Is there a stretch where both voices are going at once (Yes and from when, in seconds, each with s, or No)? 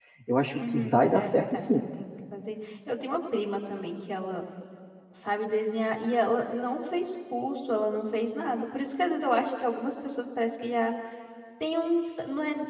Yes, from 0.5 s